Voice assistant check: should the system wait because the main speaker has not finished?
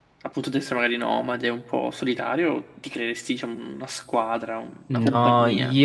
No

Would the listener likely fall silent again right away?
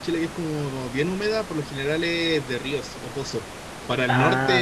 Yes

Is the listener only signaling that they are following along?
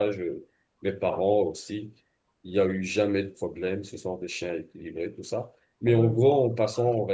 Yes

